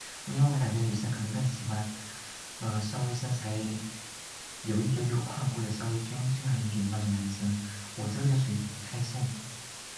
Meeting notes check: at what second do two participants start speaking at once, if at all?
none

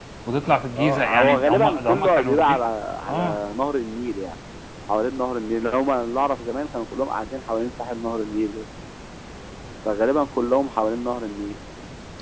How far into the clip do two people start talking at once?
0.8 s

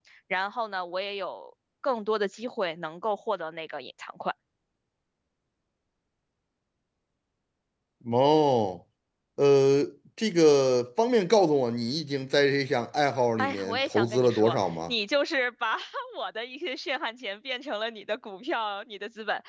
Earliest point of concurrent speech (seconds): 13.4 s

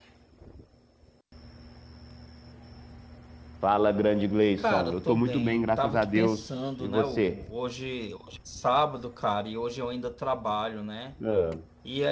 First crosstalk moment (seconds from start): 4.6 s

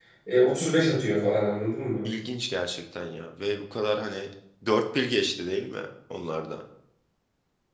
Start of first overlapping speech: none

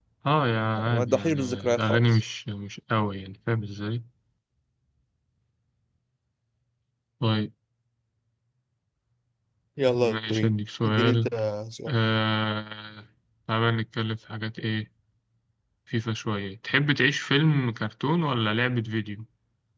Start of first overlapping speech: 0.7 s

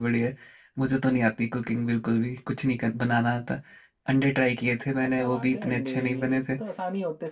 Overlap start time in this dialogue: 5.0 s

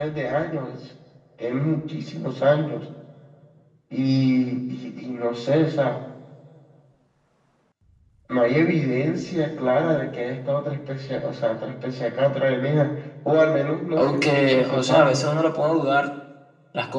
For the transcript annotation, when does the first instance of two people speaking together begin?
14.0 s

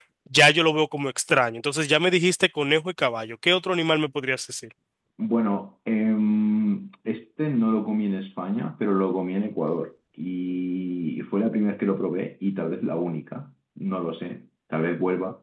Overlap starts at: none

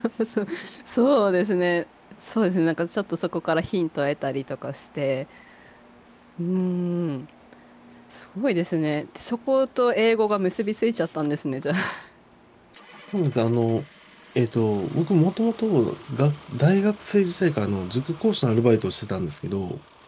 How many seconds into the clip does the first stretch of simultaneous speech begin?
none

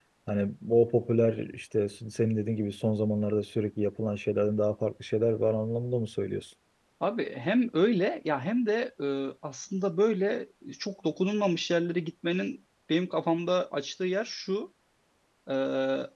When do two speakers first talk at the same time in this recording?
none

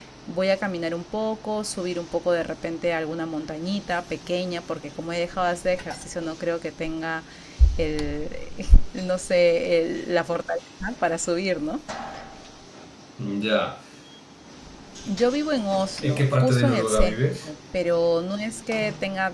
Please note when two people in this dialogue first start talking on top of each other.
16.0 s

